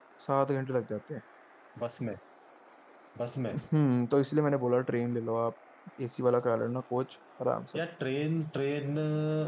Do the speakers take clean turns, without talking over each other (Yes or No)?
Yes